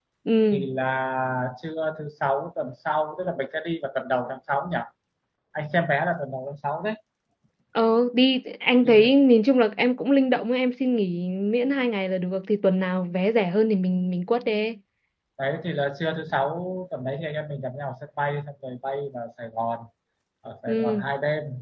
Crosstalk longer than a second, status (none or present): none